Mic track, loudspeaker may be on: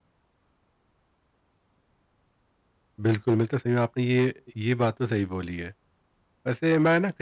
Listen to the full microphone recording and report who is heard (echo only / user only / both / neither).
user only